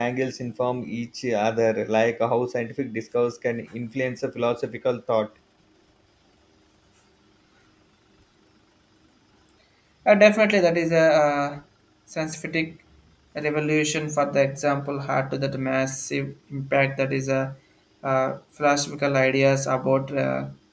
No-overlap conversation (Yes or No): Yes